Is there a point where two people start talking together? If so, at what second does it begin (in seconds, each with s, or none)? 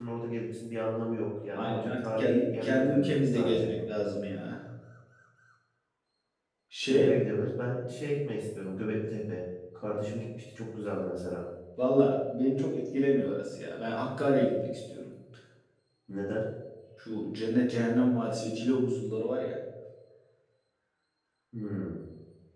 1.6 s